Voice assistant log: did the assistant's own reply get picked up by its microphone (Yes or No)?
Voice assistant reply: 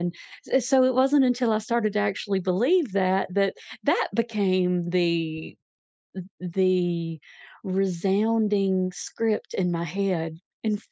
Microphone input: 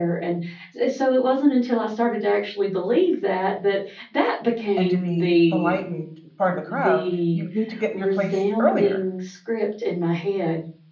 Yes